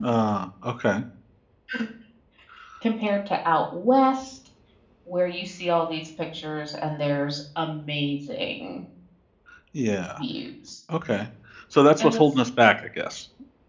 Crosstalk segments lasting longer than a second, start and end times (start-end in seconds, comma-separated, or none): none